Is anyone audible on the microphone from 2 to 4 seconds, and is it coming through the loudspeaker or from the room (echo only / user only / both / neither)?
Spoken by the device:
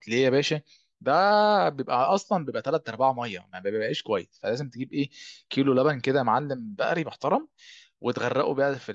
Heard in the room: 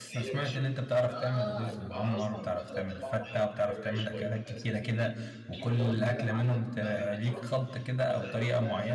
both